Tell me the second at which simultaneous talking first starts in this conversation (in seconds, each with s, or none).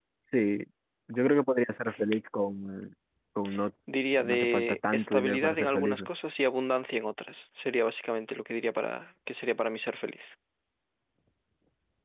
4.1 s